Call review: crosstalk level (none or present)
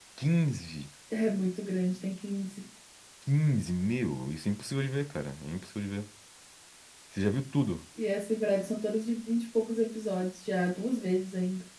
none